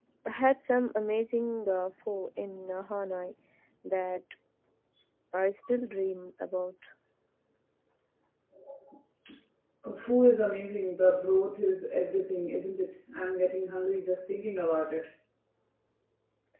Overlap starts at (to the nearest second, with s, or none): none